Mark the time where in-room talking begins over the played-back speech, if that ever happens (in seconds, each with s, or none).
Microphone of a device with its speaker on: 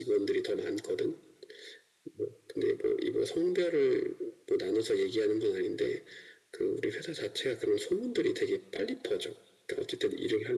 none